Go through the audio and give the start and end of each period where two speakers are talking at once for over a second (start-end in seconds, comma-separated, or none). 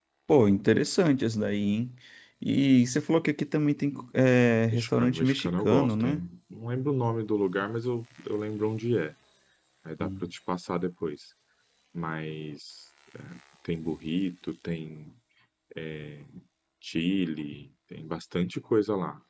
4.7-6.2